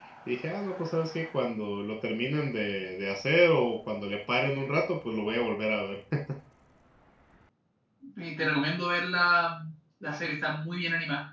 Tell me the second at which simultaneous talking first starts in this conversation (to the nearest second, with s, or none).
none